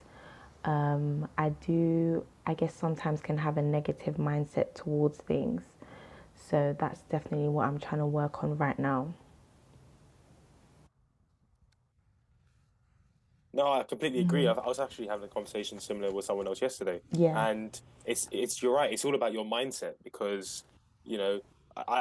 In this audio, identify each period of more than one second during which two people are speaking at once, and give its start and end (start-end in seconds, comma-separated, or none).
none